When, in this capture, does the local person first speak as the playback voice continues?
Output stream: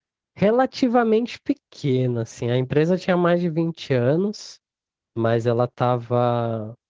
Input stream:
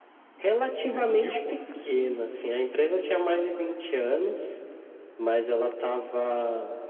0.8 s

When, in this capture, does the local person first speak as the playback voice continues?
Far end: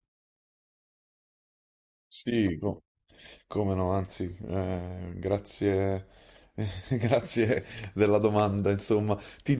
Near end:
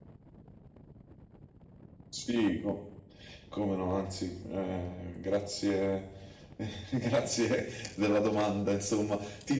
none

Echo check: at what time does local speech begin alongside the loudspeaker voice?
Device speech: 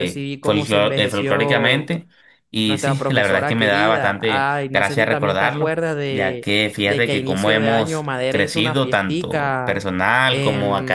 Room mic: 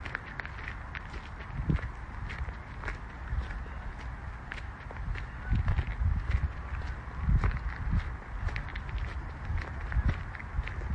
none

